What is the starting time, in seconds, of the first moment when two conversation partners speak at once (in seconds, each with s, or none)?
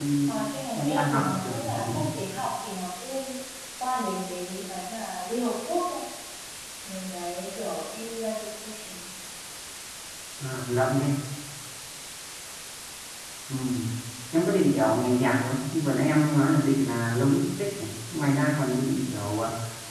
0.7 s